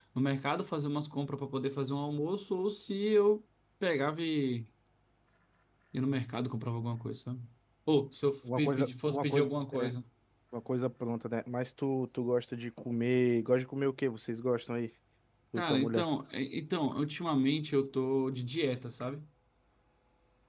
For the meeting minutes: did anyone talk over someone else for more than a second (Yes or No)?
Yes